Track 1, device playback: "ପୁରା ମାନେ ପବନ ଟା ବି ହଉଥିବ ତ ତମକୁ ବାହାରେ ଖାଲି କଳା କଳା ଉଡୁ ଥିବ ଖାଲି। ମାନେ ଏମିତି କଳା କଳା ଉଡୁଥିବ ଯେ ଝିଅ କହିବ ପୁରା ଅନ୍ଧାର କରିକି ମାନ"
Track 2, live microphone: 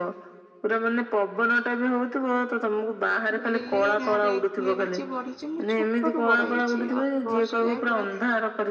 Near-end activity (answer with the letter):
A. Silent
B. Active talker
B